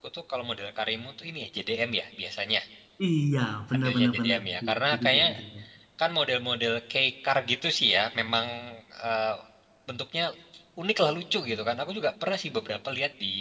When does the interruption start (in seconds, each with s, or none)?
3.7 s